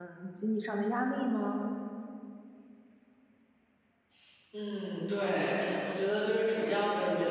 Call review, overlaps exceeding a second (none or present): none